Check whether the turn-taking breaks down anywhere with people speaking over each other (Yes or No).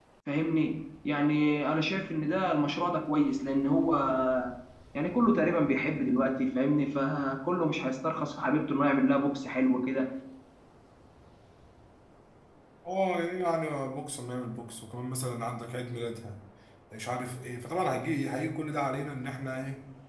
No